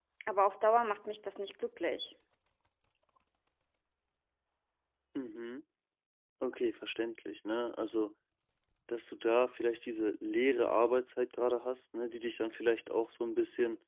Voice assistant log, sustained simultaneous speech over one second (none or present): none